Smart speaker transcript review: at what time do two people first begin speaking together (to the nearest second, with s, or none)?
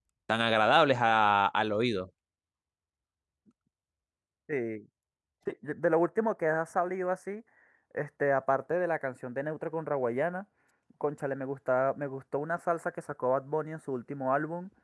none